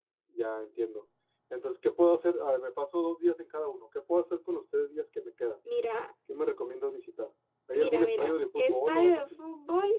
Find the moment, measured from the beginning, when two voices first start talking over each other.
7.7 s

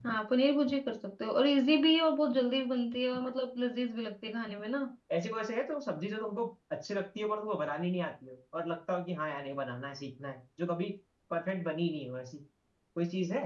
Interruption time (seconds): none

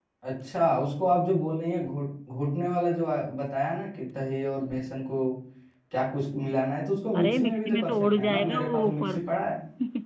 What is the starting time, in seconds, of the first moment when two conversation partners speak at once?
7.1 s

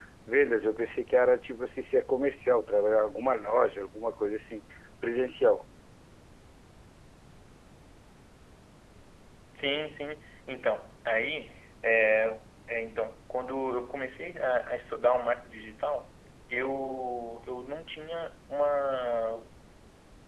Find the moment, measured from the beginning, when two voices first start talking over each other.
none

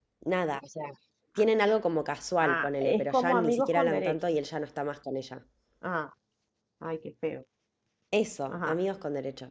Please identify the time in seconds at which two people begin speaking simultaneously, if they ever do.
2.4 s

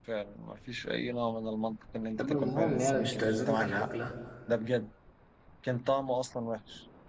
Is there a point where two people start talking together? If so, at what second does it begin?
2.2 s

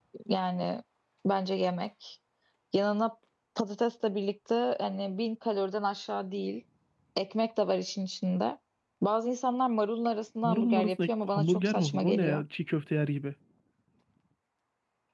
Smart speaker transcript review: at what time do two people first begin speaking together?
10.4 s

